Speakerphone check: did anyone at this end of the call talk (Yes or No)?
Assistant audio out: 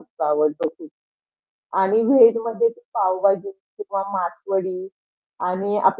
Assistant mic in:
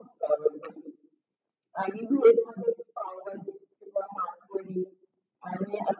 No